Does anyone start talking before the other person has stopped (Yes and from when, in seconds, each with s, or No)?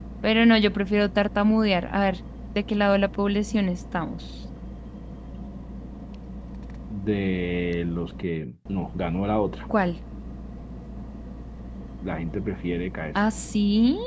No